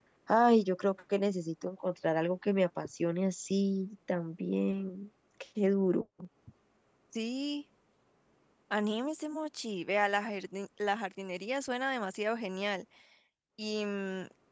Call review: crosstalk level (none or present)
none